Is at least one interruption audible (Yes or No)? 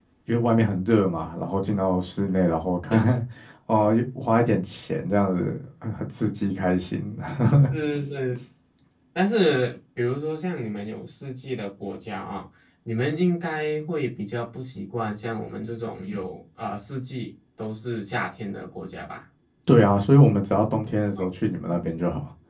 No